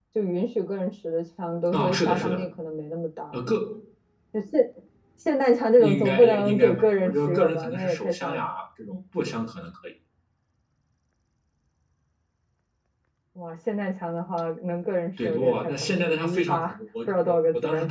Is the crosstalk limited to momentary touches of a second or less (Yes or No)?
No